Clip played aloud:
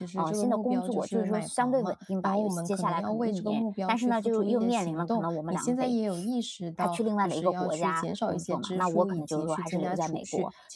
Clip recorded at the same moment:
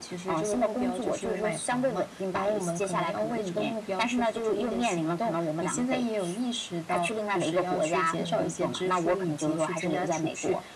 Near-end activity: present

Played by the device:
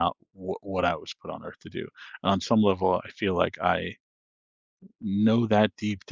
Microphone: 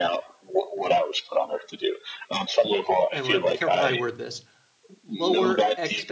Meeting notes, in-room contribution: present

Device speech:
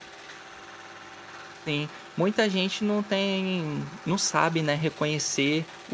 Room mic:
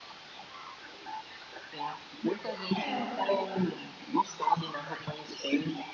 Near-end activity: present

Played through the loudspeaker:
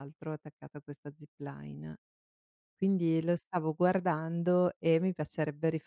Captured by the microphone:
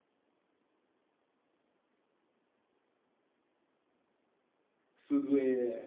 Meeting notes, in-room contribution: present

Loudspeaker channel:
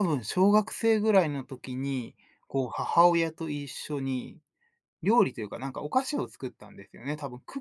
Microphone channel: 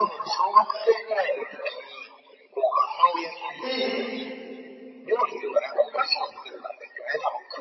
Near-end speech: present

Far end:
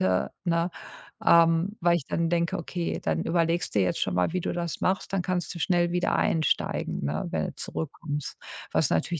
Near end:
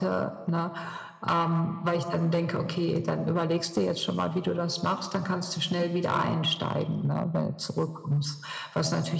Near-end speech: none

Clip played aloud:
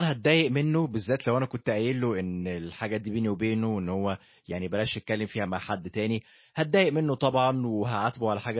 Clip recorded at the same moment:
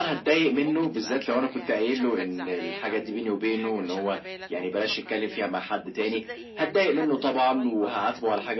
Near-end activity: present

